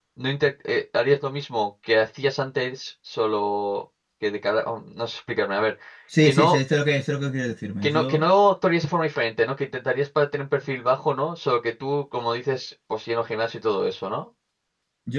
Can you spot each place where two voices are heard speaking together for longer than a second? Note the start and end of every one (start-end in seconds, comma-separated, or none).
none